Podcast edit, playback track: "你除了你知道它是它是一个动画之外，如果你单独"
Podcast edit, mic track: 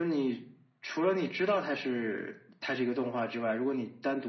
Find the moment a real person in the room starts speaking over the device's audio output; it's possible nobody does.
none

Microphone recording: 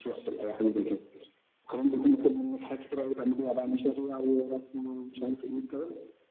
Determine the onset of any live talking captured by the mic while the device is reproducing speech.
none

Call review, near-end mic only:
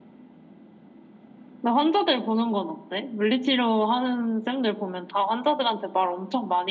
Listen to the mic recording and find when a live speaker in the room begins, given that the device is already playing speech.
none

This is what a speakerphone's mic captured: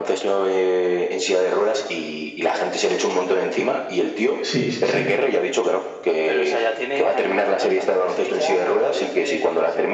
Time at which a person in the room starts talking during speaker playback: 4 s

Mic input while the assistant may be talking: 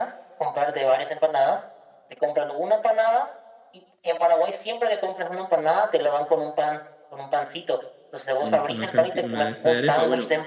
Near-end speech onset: 8 s

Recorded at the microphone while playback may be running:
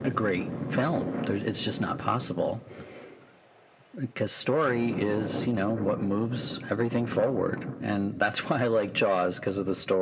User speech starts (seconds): none

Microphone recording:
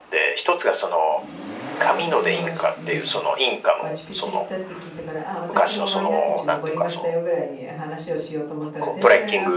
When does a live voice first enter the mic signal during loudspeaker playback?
2 s

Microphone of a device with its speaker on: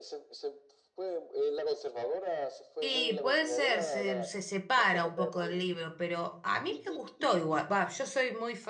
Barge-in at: 3 s

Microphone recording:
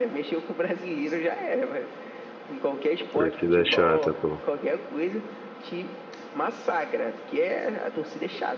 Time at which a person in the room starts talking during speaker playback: 3 s

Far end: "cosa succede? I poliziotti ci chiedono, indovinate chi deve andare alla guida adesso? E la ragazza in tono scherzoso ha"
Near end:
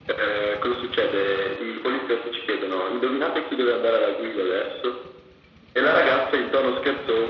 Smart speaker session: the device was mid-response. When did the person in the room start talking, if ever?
none

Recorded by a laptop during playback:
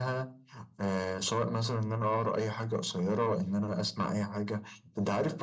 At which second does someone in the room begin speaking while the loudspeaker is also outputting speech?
none

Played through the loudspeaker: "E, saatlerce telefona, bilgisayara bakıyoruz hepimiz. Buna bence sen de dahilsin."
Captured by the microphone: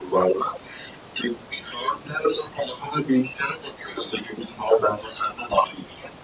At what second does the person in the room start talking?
none

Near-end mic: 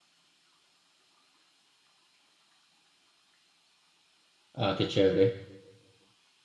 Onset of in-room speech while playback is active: 5 s

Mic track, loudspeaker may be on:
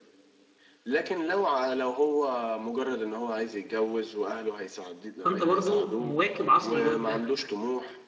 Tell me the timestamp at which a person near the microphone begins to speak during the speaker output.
5 s

